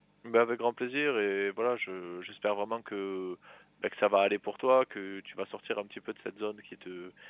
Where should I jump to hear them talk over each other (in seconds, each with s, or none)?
none